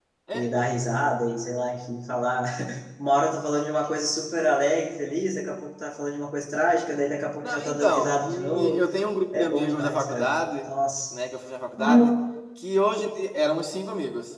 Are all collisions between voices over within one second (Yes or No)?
No